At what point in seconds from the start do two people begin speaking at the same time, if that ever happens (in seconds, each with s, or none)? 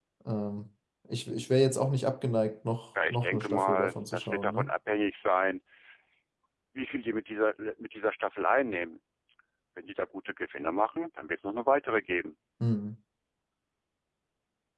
3.0 s